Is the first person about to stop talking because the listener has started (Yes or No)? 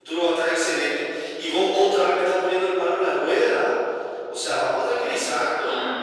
Yes